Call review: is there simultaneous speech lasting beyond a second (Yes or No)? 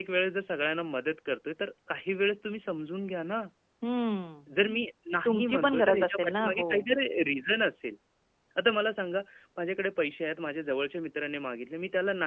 Yes